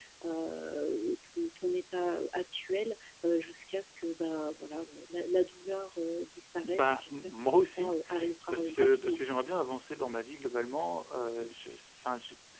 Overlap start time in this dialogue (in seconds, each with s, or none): 6.6 s